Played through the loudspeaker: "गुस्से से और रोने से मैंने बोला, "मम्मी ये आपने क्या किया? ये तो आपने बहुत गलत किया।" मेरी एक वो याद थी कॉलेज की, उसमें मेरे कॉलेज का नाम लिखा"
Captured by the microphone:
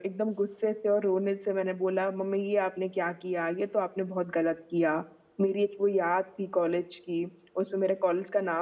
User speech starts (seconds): none

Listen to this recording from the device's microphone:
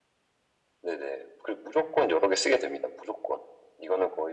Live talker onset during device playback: none

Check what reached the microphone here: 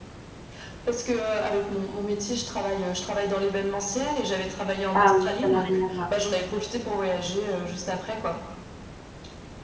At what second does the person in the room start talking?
5 s

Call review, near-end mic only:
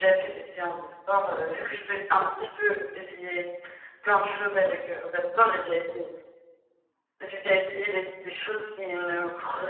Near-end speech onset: 2 s

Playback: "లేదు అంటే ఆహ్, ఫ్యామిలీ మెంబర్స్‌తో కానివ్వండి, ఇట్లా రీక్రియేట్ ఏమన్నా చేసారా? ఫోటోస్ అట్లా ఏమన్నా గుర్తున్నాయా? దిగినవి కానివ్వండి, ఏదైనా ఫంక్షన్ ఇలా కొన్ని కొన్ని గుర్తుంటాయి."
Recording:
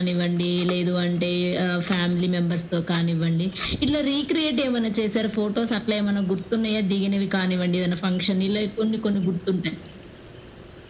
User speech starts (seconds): none

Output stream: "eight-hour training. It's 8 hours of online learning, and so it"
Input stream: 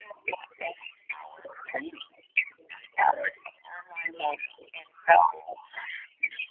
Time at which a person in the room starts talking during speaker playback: none

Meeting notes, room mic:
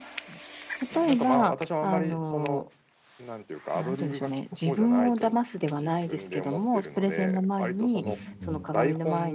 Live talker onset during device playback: 8 s

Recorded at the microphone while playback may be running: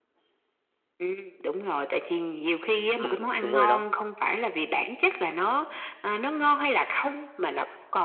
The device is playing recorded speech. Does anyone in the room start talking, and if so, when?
3 s

